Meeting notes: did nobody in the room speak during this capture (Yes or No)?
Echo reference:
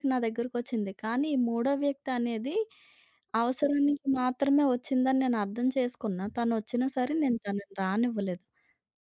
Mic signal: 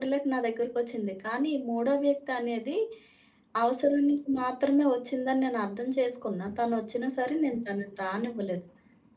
Yes